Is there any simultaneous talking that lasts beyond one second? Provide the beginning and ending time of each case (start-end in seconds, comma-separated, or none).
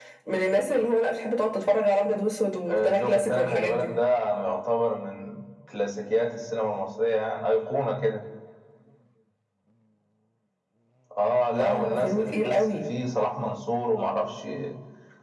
2.7-3.9, 11.6-12.8